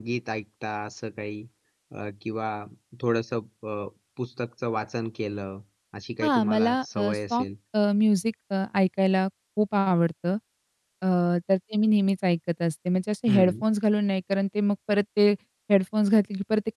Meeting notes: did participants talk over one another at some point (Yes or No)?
Yes